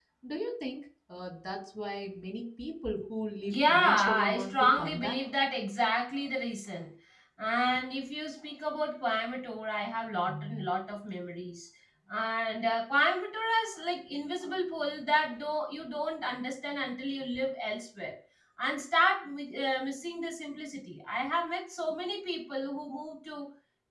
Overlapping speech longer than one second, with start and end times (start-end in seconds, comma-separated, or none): 3.5-5.2